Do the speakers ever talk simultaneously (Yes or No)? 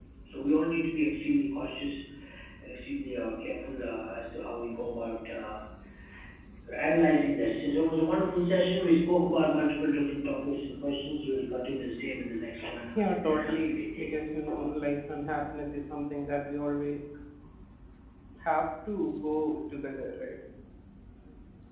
Yes